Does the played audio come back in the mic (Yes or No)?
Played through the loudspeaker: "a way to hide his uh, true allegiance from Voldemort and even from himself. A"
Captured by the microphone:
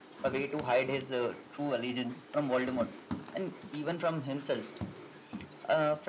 Yes